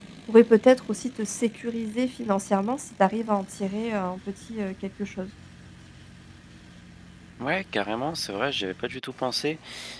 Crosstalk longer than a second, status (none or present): none